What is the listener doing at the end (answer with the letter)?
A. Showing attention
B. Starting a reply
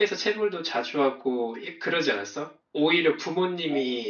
A